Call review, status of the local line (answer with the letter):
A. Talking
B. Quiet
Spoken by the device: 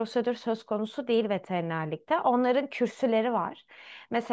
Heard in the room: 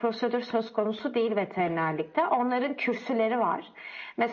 B